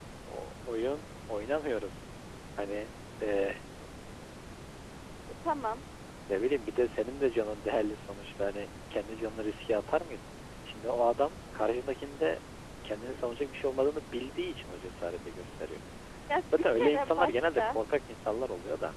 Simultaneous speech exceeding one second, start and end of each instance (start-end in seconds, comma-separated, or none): 16.6-17.8